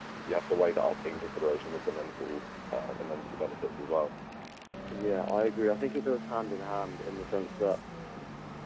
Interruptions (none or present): none